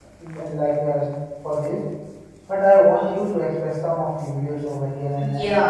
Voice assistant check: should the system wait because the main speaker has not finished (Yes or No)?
No